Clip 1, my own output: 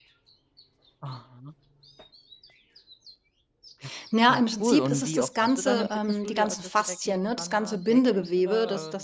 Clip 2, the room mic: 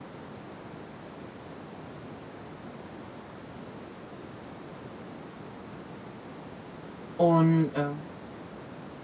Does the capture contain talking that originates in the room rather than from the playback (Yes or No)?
Yes